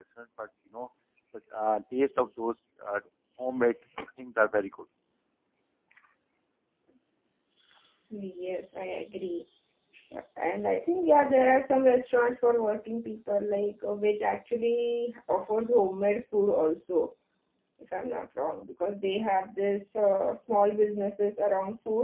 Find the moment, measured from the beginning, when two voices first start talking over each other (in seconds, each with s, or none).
none